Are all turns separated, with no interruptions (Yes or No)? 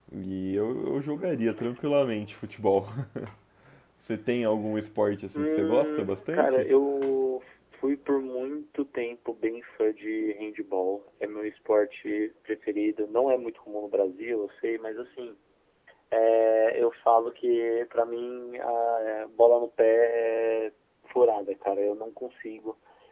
No